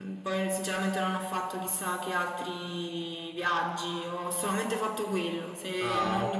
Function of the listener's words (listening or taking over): listening